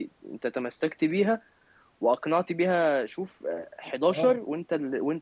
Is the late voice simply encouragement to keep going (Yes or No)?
Yes